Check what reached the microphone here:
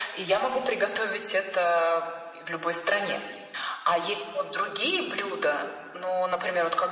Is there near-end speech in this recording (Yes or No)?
No